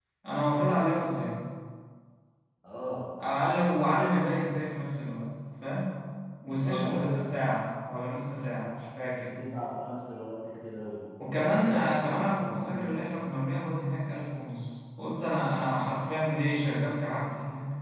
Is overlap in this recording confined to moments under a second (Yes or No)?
No